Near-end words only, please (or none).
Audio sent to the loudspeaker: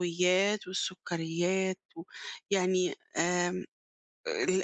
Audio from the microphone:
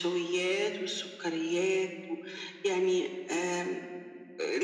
none